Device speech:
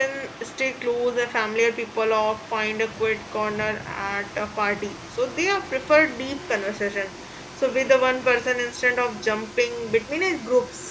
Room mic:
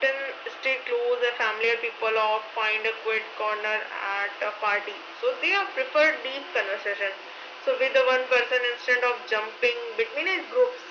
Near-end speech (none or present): none